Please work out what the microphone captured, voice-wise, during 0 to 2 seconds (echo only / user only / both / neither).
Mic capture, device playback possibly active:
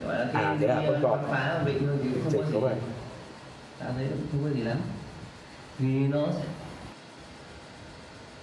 both